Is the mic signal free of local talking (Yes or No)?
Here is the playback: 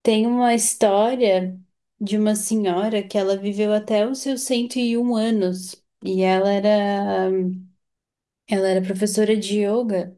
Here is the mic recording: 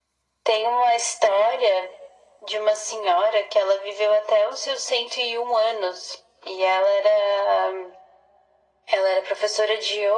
Yes